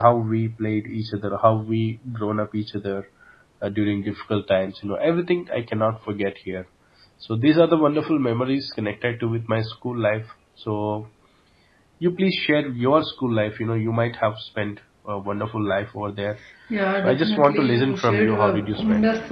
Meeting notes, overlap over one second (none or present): present